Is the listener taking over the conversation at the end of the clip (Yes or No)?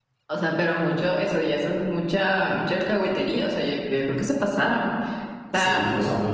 Yes